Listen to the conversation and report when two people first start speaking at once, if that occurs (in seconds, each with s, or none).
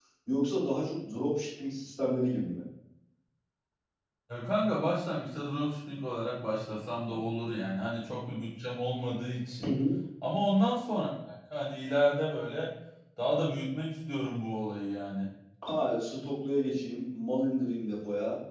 none